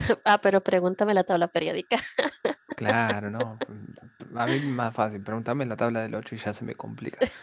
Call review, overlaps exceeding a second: none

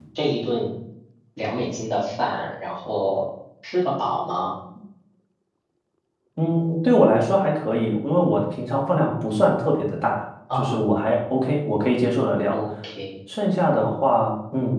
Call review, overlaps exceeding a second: none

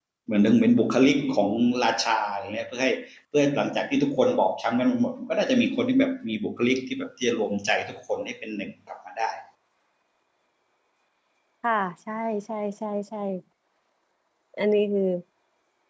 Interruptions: none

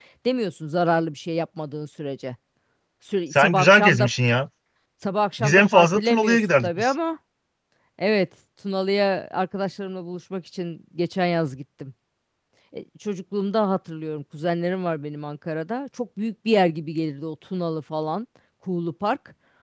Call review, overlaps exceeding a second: present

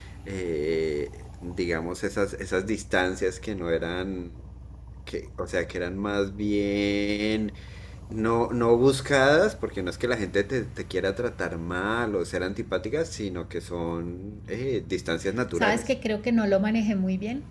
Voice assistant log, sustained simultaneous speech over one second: none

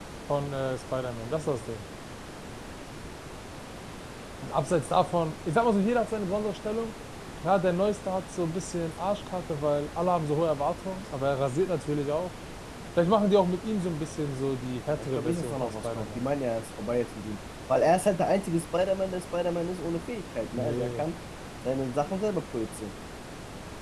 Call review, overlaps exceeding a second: present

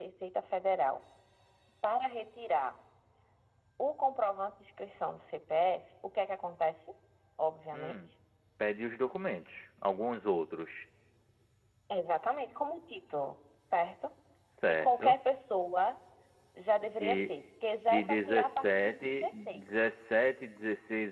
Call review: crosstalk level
present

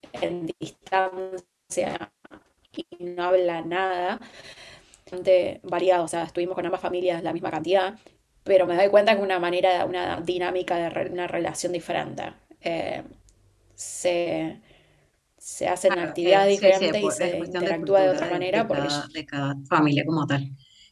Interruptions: present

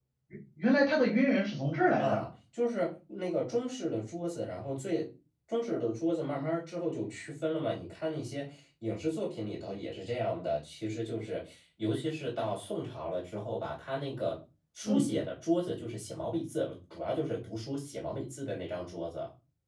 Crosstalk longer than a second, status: none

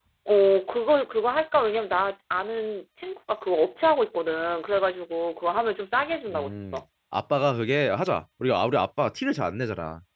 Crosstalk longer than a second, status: none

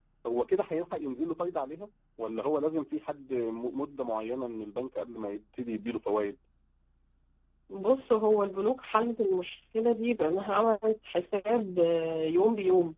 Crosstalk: none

